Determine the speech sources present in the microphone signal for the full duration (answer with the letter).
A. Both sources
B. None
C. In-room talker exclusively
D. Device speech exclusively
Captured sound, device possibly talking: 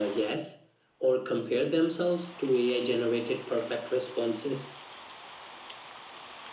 D